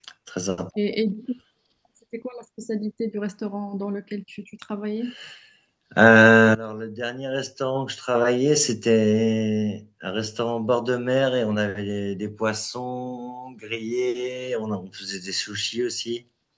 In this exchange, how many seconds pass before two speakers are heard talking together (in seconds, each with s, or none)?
none